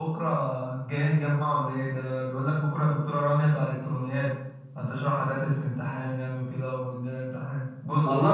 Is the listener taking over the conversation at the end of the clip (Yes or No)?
Yes